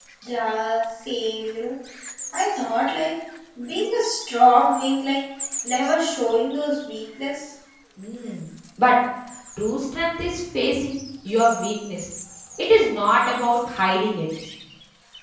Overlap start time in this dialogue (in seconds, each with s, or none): none